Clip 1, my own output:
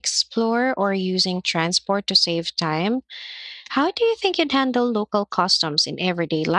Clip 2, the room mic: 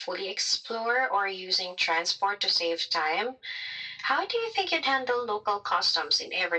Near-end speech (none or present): none